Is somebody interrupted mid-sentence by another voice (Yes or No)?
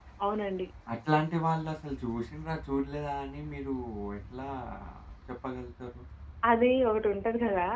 No